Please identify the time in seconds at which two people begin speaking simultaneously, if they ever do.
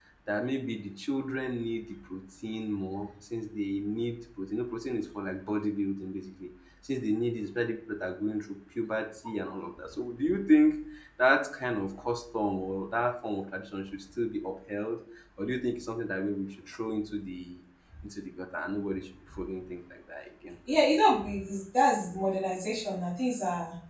none

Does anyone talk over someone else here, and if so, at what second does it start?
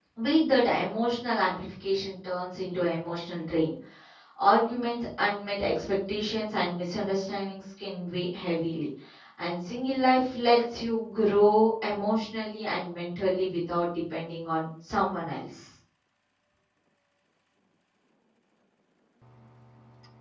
none

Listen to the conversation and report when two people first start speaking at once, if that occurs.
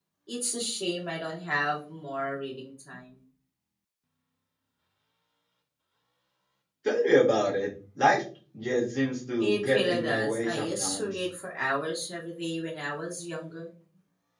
9.4 s

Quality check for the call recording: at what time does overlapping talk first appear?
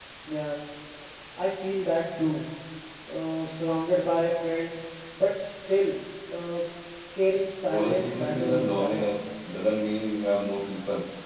7.7 s

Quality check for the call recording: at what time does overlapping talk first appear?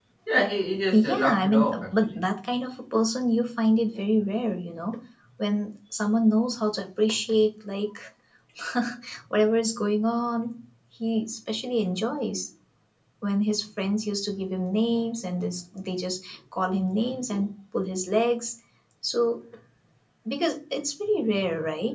0.9 s

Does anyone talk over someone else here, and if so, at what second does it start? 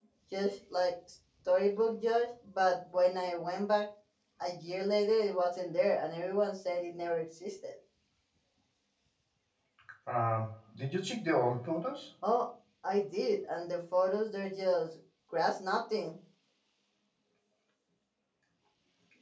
none

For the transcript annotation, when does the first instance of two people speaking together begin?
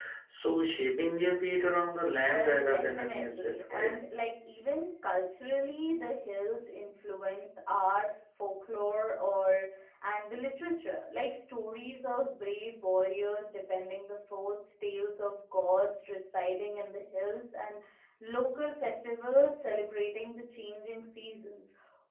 2.2 s

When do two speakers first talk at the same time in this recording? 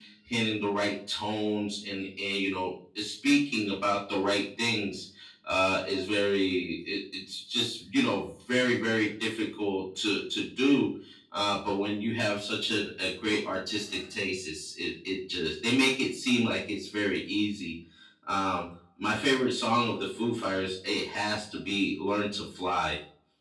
none

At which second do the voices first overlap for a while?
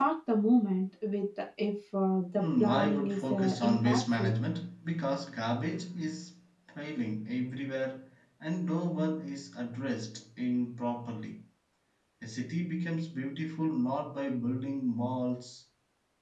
2.4 s

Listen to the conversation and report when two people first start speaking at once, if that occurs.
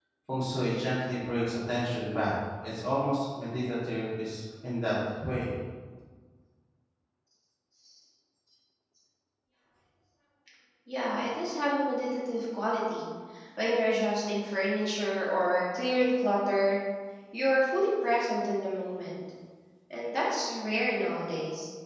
none

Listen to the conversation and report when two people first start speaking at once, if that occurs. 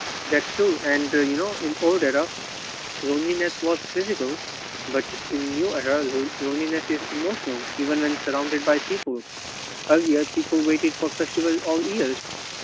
none

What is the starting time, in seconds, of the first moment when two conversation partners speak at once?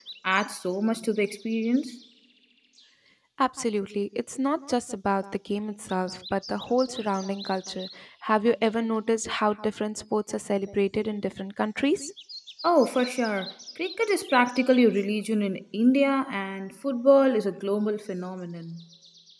none

